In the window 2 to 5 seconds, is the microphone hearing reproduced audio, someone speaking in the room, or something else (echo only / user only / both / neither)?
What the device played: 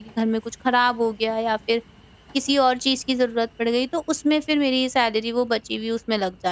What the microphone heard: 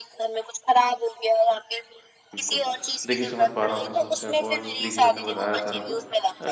both